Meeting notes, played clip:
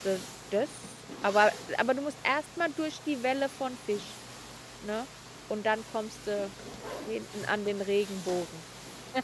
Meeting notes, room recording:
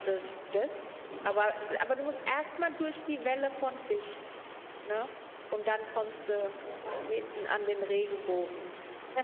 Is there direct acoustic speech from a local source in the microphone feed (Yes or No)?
No